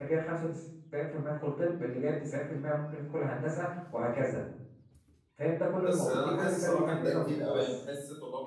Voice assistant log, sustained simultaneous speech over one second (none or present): present